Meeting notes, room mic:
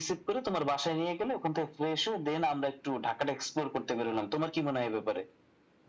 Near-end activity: none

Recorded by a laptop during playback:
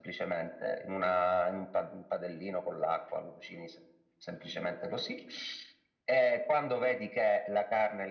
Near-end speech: none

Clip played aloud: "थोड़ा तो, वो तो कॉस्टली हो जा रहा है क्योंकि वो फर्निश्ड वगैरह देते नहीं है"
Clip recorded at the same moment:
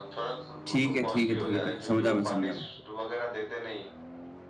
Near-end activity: present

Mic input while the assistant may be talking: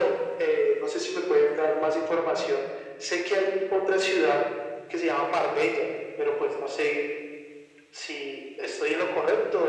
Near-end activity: none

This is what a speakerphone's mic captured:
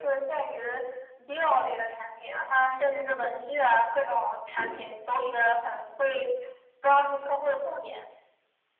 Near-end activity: present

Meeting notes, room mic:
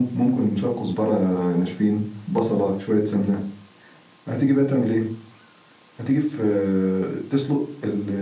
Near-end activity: none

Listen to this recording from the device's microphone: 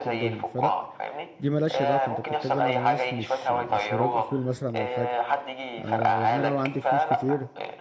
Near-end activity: present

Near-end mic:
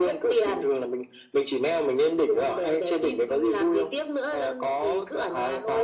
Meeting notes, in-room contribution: none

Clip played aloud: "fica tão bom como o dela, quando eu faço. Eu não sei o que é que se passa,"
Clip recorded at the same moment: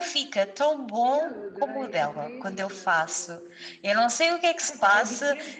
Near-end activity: present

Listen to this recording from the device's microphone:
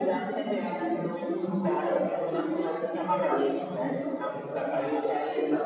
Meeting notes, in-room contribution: none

